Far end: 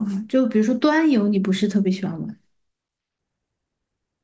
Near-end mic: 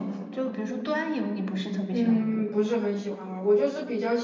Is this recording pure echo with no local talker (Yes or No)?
No